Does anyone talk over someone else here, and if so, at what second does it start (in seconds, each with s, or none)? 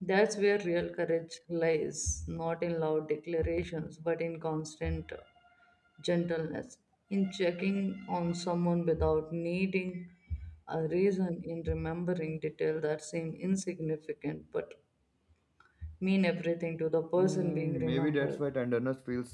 17.2 s